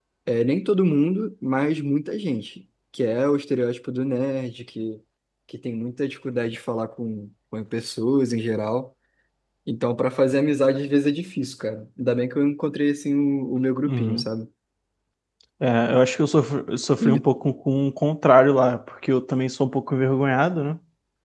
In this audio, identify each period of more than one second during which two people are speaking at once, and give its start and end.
none

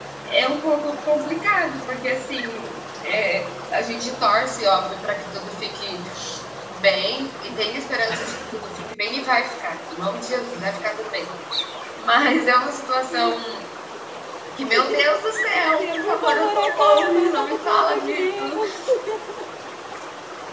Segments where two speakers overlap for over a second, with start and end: 15.8-18.6

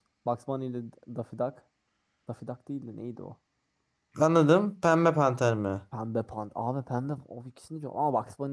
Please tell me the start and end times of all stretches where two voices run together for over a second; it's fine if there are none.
none

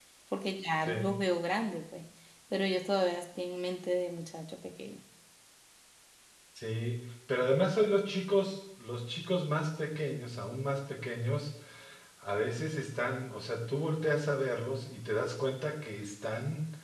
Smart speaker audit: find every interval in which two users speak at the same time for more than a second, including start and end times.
none

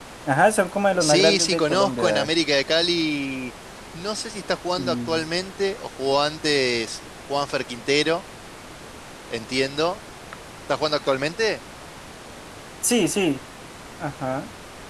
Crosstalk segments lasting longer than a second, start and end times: 1.0-2.3

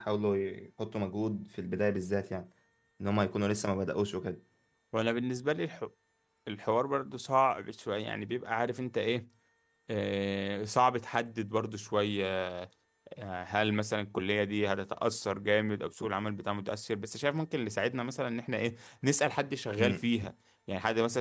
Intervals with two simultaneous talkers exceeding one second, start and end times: none

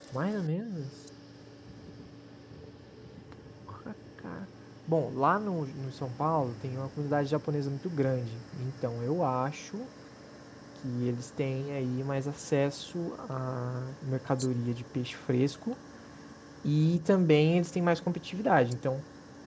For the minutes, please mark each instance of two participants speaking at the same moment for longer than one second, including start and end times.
none

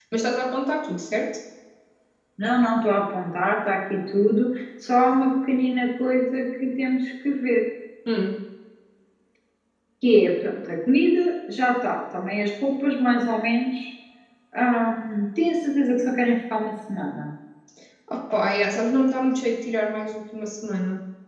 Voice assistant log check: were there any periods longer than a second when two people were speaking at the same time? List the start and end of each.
none

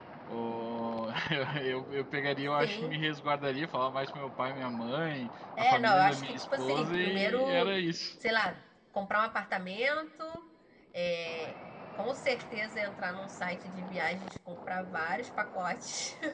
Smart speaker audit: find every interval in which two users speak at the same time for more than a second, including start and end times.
5.6-7.7

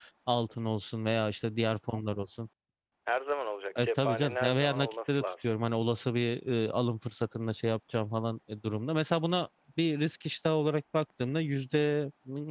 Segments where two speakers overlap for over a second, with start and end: 3.8-5.5

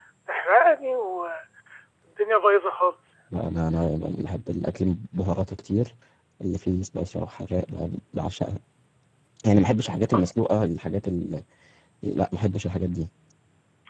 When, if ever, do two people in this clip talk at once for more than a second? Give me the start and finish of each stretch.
none

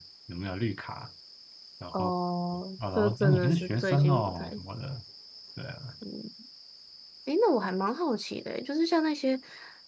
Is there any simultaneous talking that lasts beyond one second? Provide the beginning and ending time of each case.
3.0-4.6

